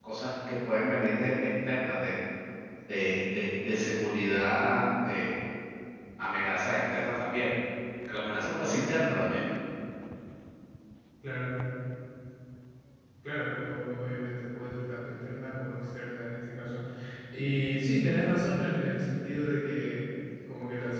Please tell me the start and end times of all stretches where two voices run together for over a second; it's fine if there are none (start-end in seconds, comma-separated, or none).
none